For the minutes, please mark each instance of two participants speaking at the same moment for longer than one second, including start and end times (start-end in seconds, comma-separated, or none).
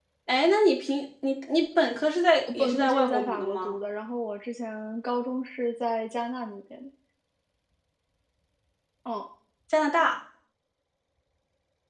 2.5-3.8